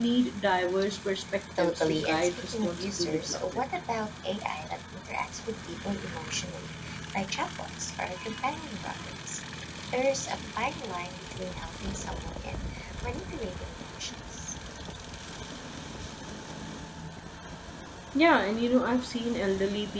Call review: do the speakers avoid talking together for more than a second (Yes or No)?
No